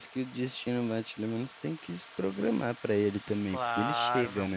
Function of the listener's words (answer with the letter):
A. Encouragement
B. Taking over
B